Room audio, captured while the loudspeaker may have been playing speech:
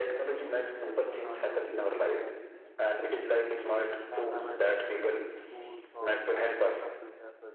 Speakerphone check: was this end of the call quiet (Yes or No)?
No